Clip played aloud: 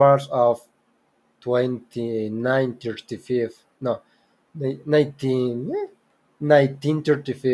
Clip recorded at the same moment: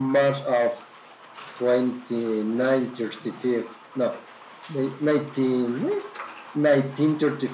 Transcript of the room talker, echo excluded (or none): none